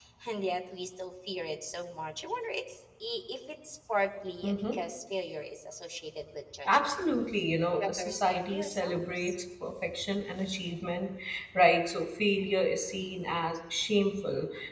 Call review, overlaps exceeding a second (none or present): present